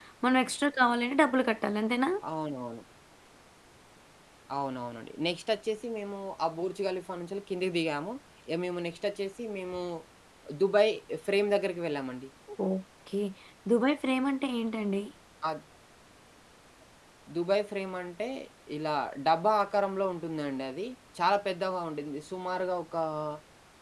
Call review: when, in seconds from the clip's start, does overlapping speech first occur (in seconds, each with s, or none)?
none